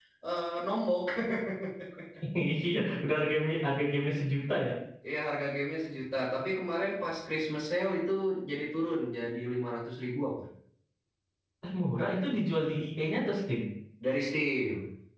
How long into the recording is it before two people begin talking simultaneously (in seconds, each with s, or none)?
none